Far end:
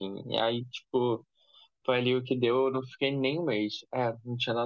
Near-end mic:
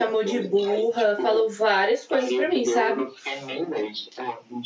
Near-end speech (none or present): present